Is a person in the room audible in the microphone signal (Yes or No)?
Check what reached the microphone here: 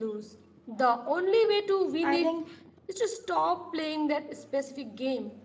Yes